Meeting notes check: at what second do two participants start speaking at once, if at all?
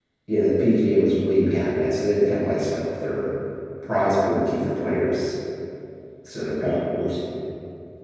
none

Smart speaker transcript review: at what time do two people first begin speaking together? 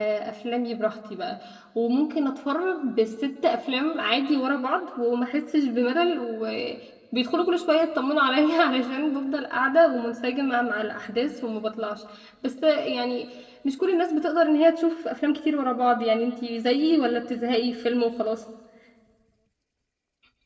none

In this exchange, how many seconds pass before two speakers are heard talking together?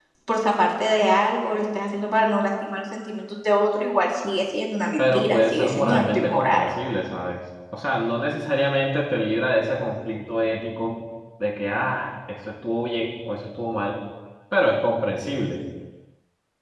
5.0 s

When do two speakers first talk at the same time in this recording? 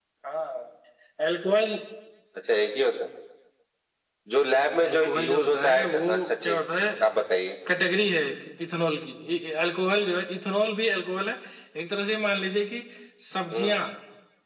4.9 s

